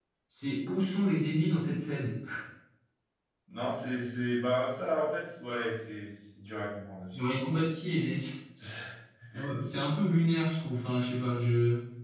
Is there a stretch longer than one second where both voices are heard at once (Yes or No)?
No